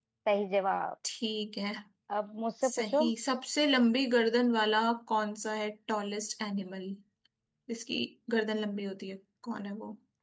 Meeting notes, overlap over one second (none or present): none